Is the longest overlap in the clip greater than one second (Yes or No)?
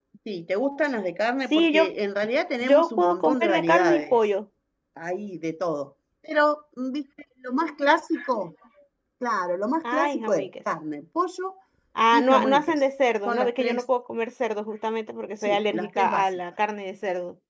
Yes